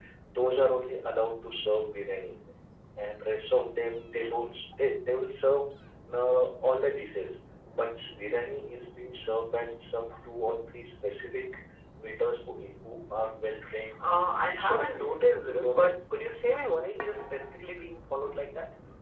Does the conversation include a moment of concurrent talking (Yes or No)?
Yes